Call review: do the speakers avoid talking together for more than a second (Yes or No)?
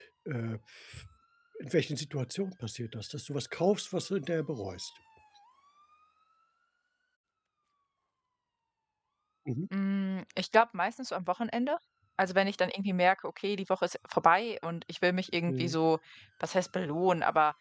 Yes